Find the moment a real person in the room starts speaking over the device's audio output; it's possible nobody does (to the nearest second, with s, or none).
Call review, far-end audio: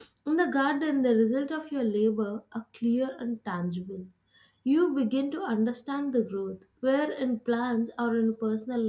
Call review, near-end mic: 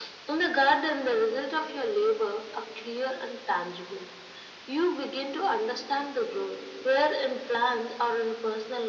none